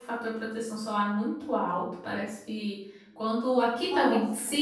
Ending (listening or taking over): listening